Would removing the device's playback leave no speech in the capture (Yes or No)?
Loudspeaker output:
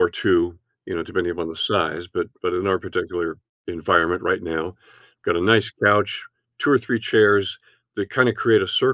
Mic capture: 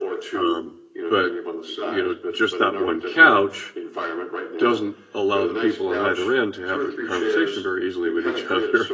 No